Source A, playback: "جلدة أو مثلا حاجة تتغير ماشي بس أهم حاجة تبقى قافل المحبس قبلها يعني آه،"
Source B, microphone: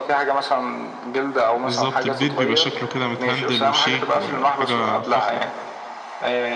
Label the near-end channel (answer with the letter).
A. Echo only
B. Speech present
B